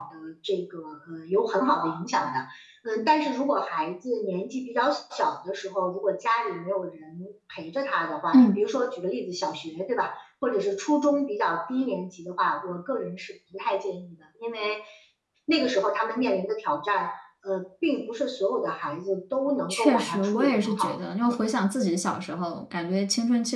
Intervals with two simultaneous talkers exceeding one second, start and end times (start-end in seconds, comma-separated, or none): 19.7-21.0